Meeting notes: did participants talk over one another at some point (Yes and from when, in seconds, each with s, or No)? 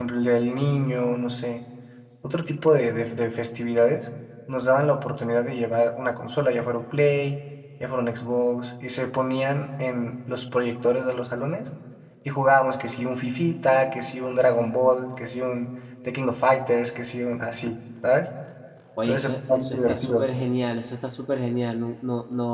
Yes, from 19.0 s